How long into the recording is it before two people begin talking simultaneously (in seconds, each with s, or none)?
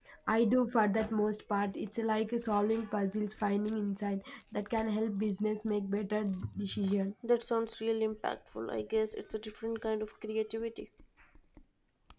none